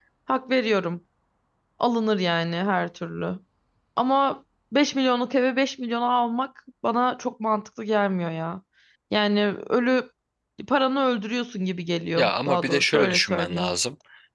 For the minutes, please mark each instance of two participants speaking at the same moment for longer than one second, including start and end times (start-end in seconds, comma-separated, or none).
12.2-13.7